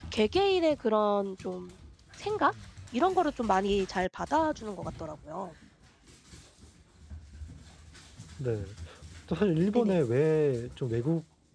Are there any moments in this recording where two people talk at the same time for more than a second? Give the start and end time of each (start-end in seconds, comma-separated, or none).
none